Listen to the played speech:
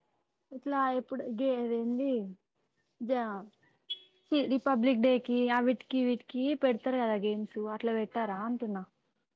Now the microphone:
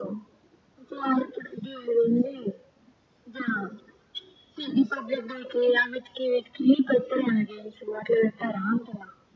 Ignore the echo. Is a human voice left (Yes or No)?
No